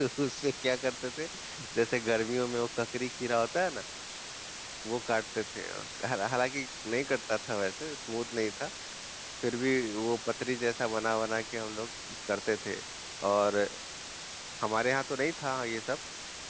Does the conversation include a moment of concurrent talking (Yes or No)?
No